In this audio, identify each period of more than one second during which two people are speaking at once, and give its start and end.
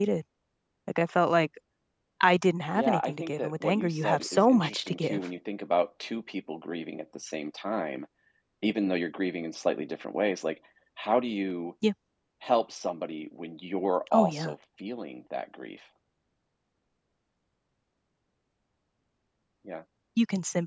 2.7-5.2

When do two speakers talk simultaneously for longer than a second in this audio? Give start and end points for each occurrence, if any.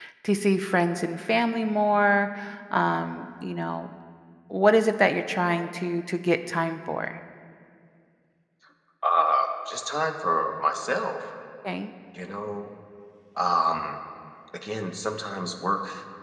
none

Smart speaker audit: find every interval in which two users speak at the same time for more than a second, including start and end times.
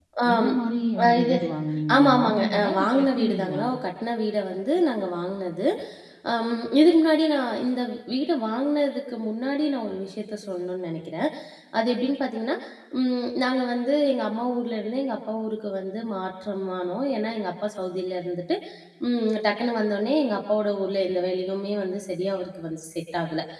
1.9-3.6

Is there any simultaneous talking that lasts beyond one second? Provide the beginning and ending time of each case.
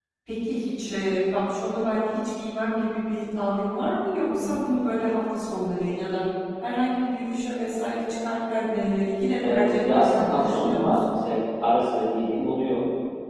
9.5-11.0

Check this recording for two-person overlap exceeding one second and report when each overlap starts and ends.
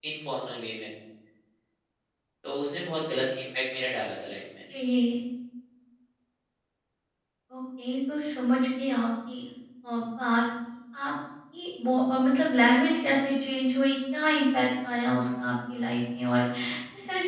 none

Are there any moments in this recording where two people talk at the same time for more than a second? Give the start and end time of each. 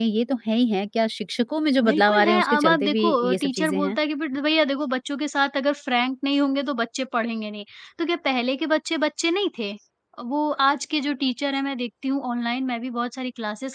1.8-4.0

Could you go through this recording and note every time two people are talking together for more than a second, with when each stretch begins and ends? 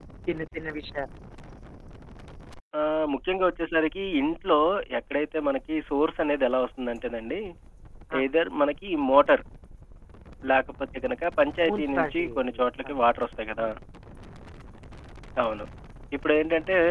11.7-12.9

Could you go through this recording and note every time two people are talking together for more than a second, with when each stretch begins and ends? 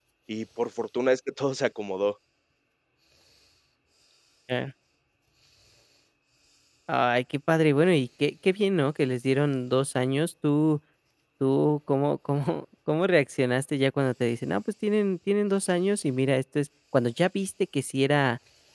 none

